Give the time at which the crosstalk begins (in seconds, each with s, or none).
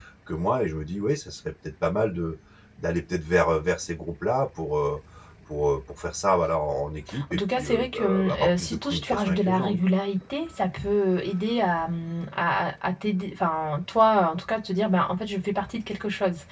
7.1 s